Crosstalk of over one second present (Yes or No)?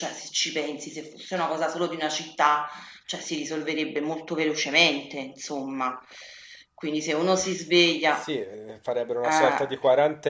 No